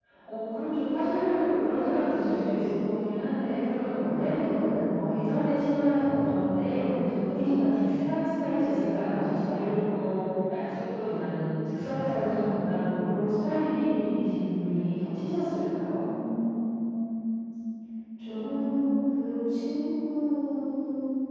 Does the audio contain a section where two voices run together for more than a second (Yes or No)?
No